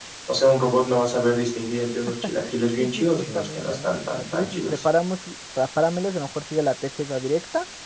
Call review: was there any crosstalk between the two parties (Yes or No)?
Yes